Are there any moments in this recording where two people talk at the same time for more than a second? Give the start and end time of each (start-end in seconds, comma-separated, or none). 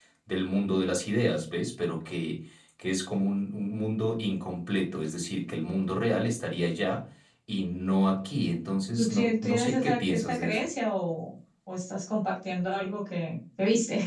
8.9-10.6